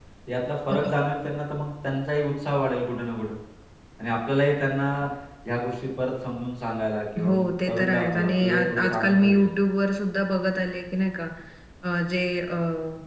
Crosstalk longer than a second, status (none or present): present